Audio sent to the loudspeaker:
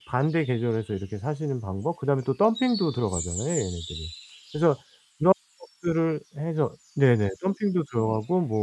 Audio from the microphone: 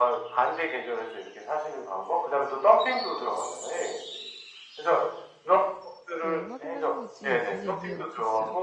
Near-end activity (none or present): present